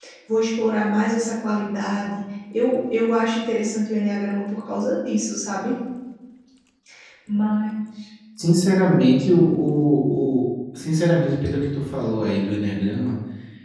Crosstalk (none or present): none